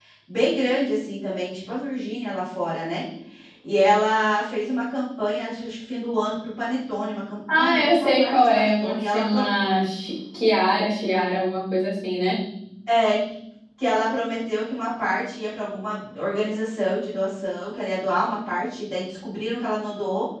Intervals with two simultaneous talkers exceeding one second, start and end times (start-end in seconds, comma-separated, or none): 7.5-9.2